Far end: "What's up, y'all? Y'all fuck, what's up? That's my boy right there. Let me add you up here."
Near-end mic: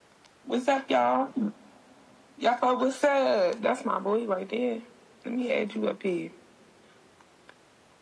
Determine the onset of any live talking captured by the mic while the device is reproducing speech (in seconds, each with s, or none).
none